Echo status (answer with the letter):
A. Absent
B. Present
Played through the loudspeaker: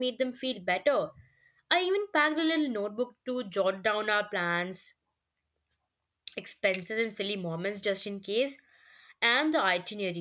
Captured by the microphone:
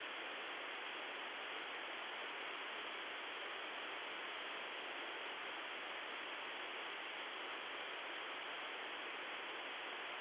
A